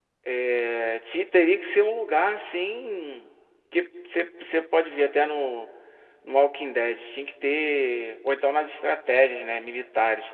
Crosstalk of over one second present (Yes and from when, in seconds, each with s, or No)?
No